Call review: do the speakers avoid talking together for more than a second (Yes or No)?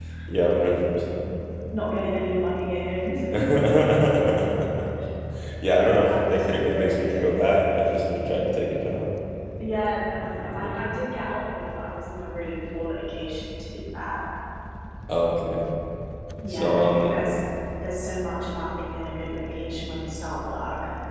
No